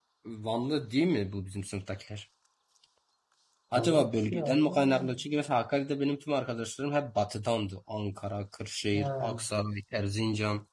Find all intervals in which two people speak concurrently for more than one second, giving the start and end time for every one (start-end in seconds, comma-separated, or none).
3.8-5.0